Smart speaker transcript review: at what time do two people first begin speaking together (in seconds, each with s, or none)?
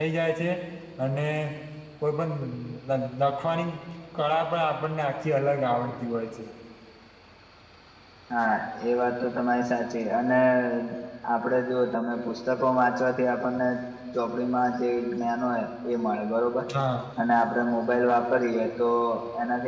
none